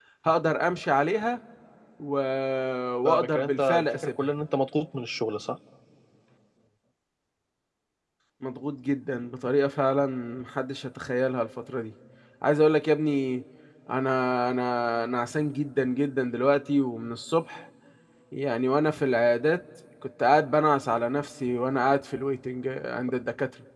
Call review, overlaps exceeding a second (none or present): present